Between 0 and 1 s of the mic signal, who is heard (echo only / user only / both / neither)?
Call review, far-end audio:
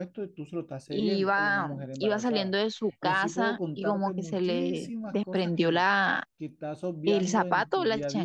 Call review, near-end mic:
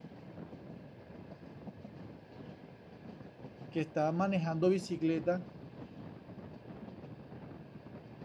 neither